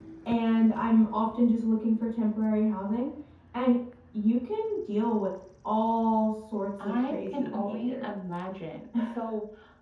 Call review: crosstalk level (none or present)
present